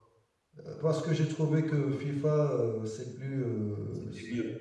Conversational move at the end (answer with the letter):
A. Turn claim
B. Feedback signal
B